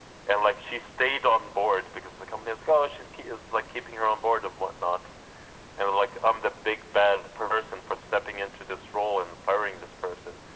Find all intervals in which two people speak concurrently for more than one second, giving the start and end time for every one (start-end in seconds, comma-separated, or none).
none